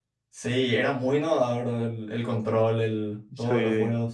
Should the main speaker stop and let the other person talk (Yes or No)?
Yes